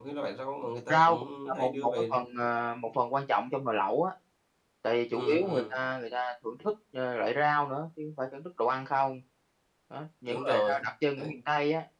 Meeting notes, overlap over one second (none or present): present